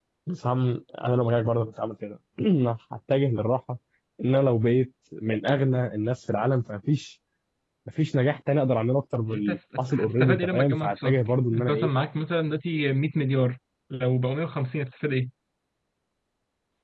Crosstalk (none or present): present